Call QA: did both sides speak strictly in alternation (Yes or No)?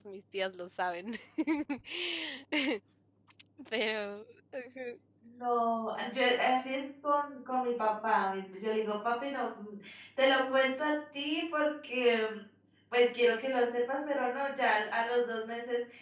Yes